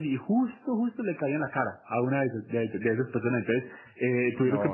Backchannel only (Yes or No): Yes